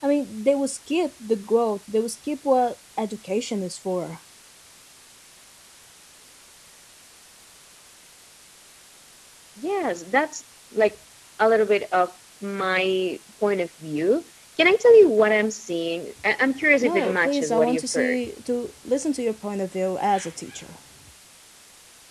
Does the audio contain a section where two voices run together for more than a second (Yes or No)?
Yes